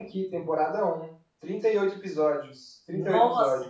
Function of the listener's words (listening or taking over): taking over